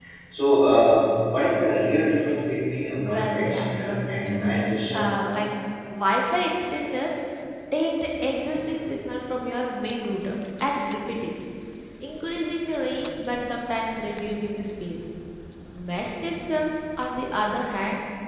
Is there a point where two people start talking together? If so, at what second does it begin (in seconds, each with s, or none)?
3.0 s